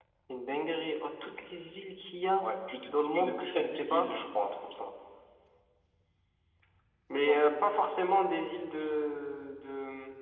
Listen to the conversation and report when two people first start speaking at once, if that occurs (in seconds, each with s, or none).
2.9 s